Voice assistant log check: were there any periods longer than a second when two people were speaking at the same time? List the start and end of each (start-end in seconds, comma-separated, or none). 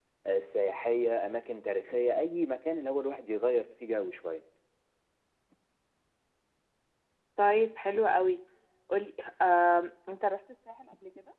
none